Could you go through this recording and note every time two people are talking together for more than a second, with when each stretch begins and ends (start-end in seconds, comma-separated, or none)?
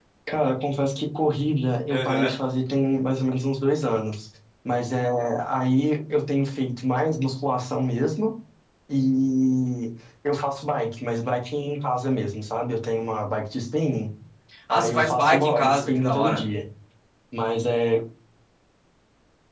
14.7-16.4